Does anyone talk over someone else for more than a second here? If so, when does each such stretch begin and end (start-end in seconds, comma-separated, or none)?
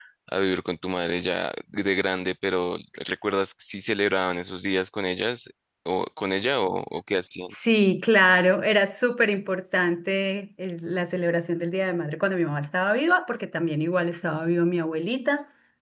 none